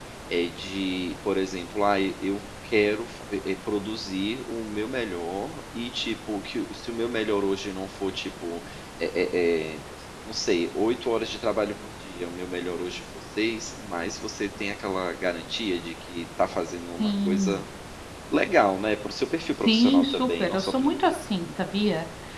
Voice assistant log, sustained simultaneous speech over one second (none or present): present